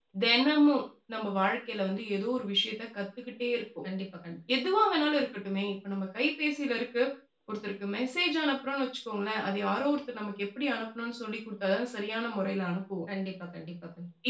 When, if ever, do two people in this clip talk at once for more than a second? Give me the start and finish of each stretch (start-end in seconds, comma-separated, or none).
none